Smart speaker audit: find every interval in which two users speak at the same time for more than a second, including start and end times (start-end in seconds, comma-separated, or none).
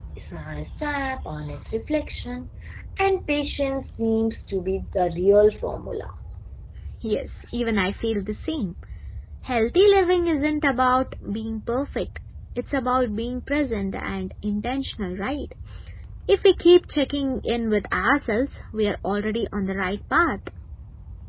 none